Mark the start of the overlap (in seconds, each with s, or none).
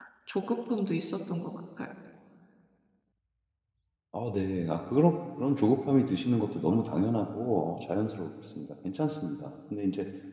none